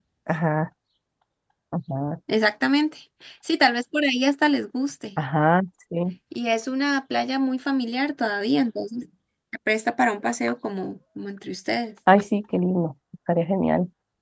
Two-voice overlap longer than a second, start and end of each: none

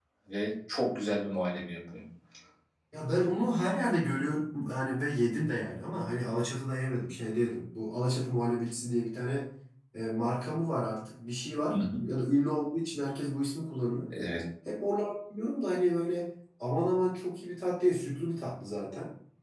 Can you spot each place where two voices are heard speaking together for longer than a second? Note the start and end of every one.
none

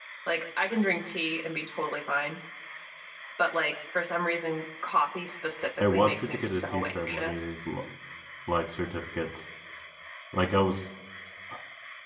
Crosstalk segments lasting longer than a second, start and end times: 5.8-7.6

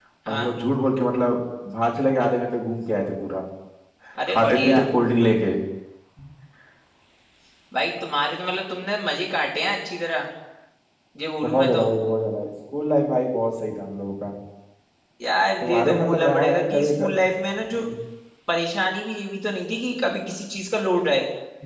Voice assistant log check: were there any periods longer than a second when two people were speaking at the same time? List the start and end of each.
15.6-17.2

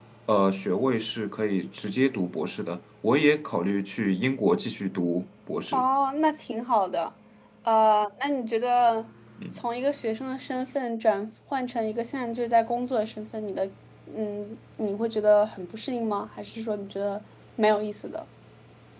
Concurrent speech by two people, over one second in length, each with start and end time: none

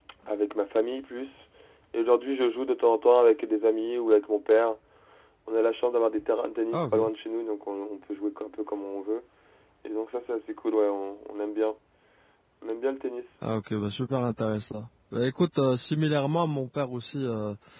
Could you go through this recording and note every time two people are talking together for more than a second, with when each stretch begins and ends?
none

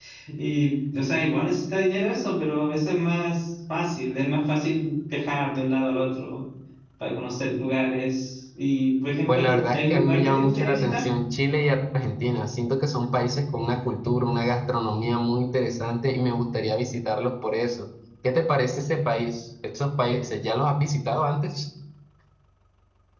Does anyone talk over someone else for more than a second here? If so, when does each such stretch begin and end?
9.3-11.0

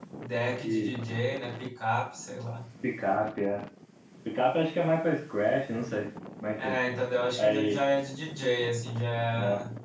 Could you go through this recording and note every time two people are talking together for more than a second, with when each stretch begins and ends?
none

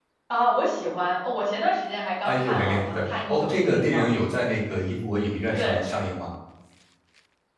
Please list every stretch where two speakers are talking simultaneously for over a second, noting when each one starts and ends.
2.2-4.1

